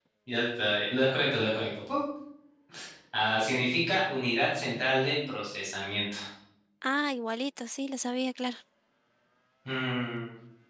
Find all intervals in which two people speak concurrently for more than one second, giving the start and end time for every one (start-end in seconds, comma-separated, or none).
none